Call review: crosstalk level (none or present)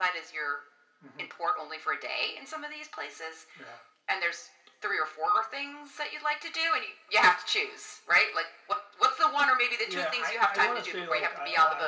present